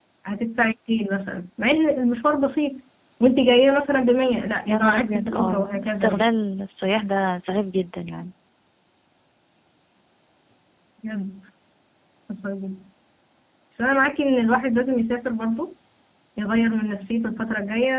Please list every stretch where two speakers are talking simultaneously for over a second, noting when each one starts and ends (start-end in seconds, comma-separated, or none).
4.7-6.3